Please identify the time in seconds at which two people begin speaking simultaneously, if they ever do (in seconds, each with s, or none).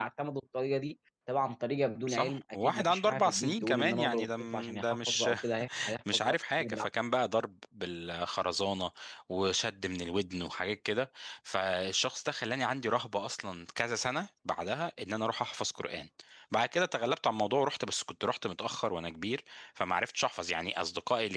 2.1 s